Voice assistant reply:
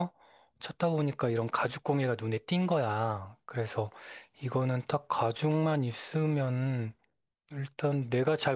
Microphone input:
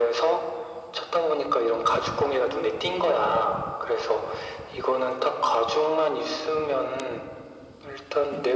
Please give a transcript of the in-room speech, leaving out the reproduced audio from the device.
none

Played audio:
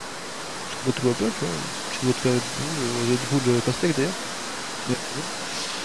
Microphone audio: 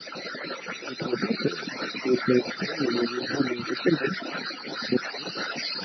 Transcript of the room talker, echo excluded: none

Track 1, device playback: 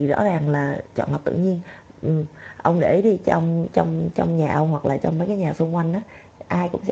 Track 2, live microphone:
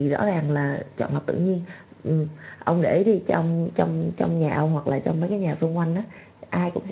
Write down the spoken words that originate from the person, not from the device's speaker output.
none

